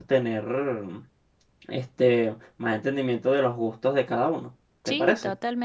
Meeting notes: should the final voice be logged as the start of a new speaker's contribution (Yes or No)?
Yes